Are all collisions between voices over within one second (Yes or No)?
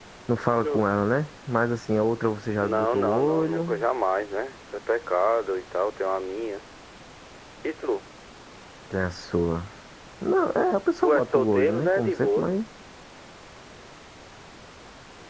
No